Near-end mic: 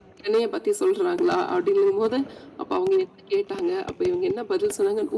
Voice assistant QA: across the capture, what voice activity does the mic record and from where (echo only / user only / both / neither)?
echo only